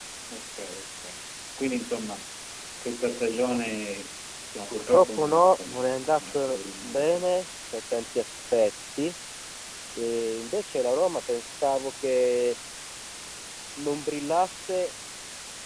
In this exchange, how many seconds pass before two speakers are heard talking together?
4.7 s

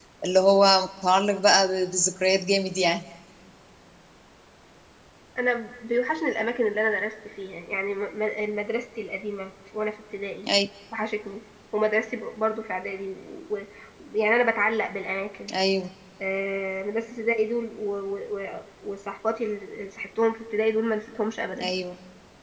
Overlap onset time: none

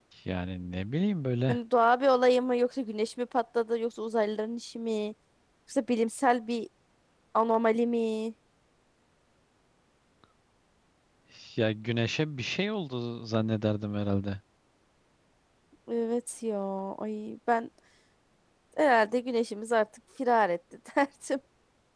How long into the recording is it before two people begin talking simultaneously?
none

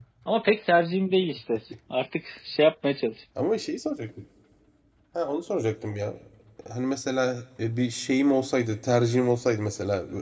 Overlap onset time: none

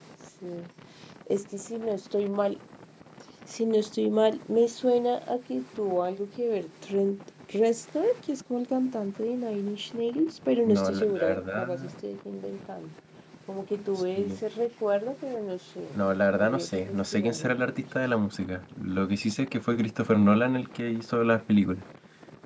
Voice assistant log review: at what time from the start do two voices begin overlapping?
10.7 s

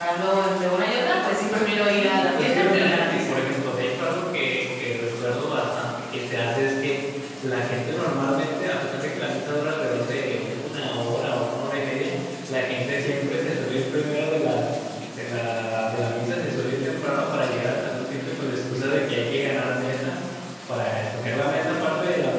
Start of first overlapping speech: 1.9 s

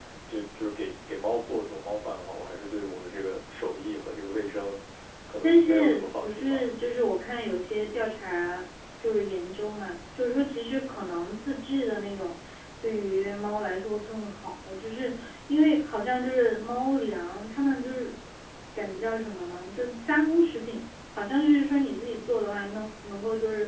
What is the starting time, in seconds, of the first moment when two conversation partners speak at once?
5.4 s

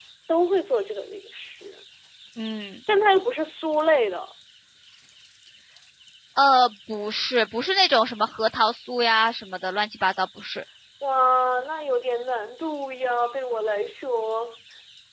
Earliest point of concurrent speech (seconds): none

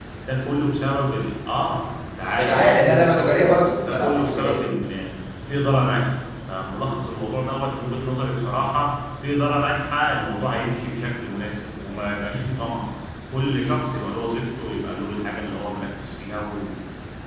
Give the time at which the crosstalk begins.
2.4 s

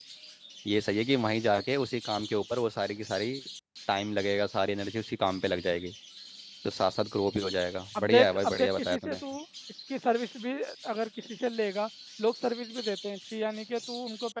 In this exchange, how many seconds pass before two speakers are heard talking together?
8.0 s

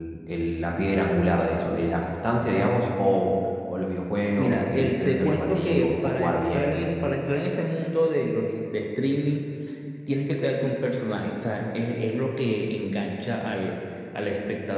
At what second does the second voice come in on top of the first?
4.4 s

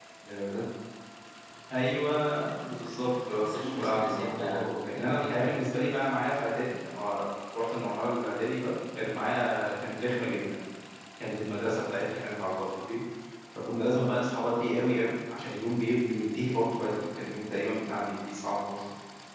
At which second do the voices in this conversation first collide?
3.4 s

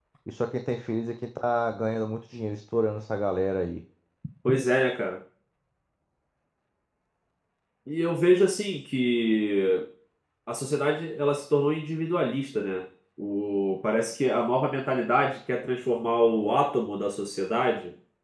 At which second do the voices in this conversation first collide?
none

